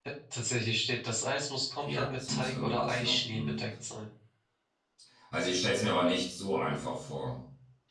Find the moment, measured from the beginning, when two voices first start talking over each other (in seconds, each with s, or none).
1.9 s